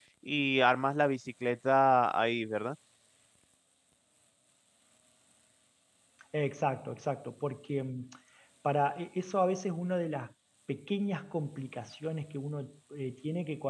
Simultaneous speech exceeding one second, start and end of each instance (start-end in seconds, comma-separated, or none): none